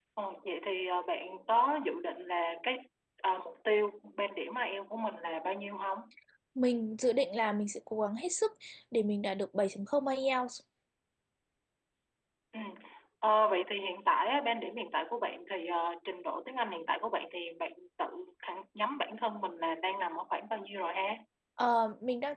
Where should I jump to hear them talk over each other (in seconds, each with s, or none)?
none